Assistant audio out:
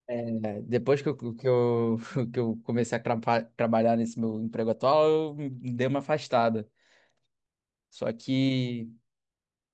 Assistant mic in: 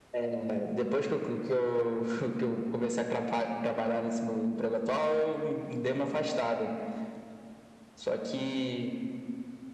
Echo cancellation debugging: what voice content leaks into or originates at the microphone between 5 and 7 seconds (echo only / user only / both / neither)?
echo only